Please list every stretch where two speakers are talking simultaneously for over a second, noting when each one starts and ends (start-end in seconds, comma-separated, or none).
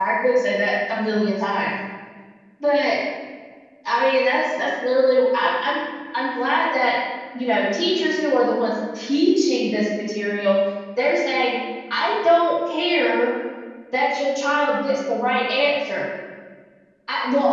none